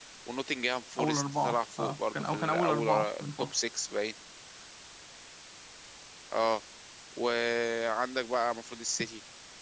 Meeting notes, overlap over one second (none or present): present